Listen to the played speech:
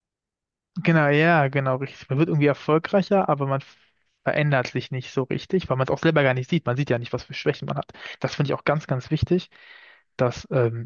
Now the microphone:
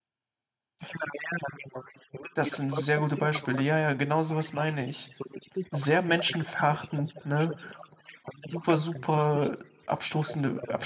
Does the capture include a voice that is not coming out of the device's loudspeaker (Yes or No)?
Yes